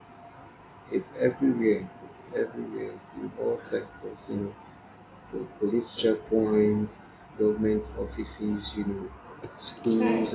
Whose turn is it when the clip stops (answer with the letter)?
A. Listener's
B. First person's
B